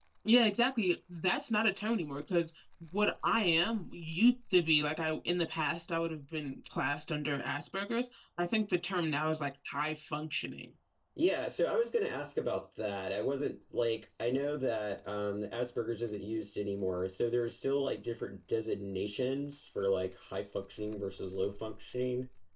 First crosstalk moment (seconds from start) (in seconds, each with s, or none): none